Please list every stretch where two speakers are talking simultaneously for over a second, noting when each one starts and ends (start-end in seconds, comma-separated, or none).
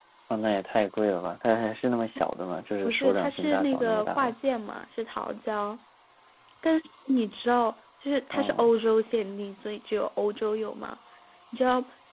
2.9-4.3